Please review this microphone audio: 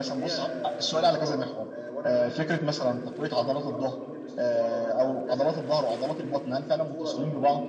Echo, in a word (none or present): present